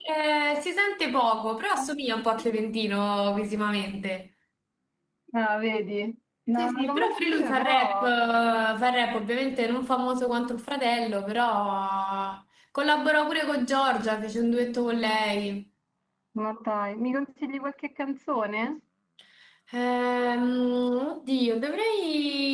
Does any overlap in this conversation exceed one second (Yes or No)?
Yes